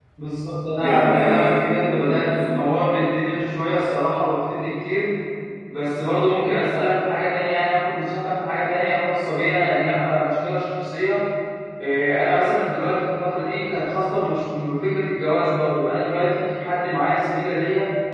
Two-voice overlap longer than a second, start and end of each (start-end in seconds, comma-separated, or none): 0.8-2.4